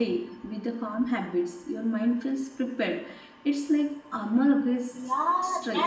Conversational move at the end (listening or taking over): taking over